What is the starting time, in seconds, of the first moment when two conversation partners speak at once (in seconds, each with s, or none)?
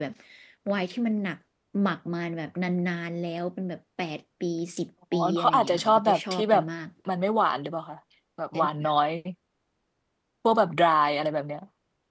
5.1 s